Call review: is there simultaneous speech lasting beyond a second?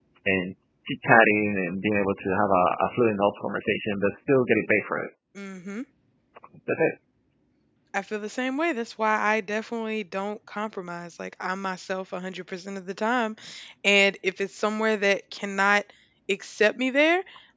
No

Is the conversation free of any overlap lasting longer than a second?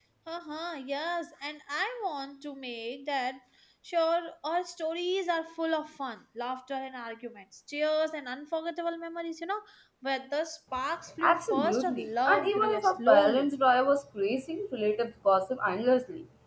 No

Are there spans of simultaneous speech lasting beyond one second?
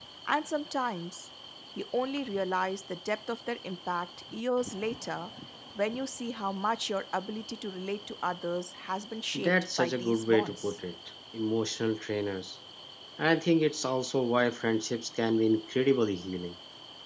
Yes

